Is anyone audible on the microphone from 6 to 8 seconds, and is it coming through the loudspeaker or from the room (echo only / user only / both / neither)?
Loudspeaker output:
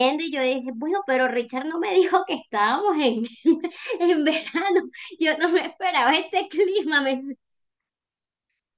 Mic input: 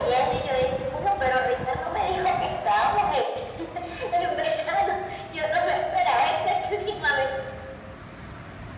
echo only